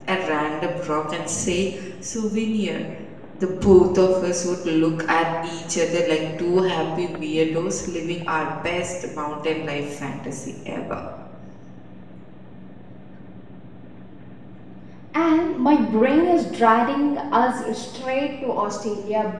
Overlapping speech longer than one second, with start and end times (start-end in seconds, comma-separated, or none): none